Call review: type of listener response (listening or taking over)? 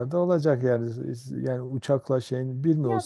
taking over